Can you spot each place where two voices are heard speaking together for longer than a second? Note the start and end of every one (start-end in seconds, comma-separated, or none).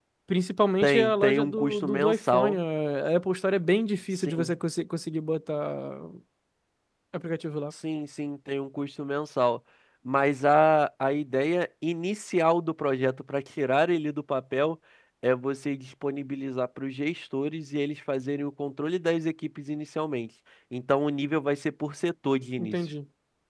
0.8-2.6